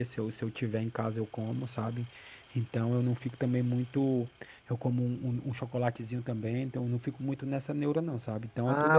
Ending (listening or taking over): taking over